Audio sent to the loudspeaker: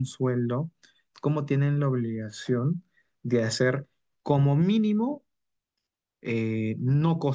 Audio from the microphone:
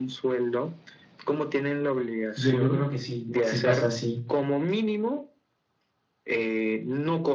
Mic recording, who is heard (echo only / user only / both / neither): both